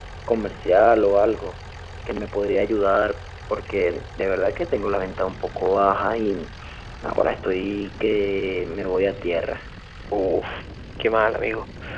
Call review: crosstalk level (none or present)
none